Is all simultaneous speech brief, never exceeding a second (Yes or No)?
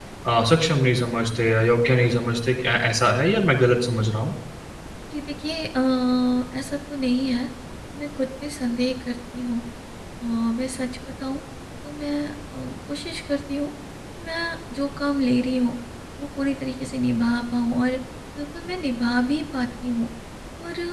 Yes